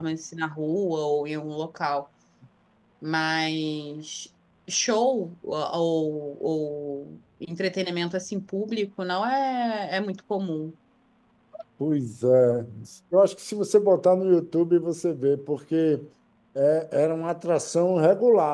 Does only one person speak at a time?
Yes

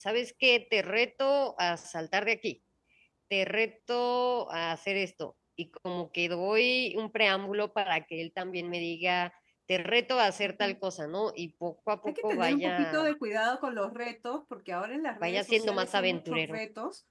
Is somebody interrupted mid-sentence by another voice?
Yes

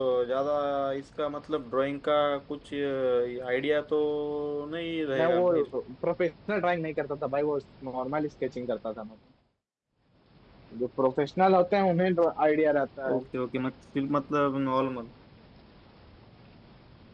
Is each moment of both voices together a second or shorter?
Yes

